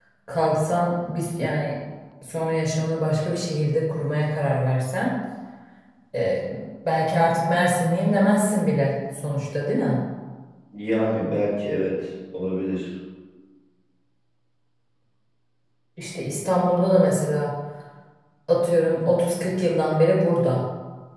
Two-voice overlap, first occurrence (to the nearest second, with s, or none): none